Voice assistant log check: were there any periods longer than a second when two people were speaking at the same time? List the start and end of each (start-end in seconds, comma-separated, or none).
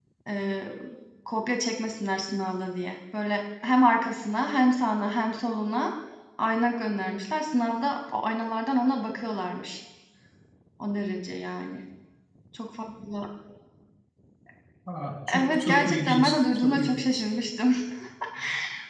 15.3-17.1